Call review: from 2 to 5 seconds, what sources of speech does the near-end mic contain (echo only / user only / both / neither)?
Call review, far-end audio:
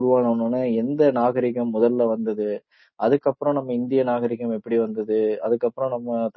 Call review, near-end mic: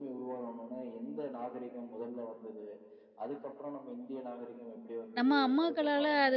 echo only